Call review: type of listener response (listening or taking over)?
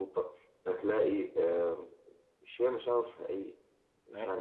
taking over